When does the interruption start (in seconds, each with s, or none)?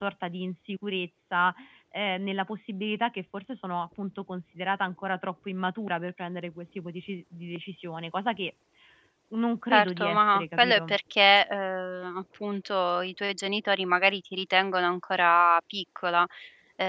9.7 s